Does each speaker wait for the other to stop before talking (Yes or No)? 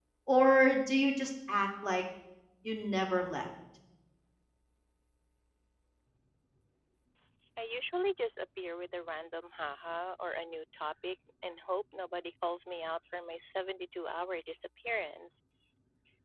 Yes